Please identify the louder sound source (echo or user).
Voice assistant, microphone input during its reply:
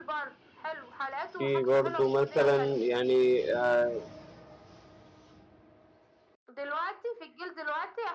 user